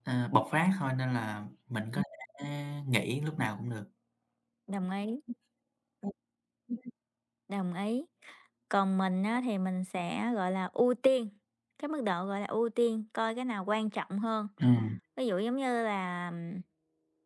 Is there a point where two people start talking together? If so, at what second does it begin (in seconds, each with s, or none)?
none